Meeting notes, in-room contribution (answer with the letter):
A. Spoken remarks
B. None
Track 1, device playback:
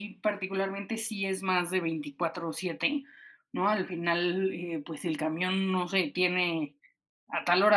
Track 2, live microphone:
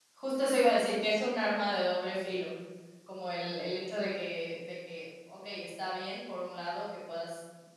A